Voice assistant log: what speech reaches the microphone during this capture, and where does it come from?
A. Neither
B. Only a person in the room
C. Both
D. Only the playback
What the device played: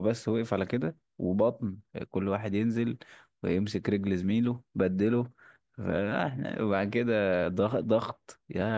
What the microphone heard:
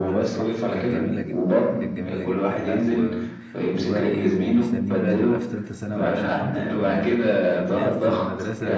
C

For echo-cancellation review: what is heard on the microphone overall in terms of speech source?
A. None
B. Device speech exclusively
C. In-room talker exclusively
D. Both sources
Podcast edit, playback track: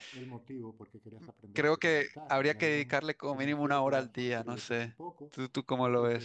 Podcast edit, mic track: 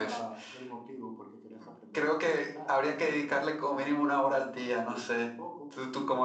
B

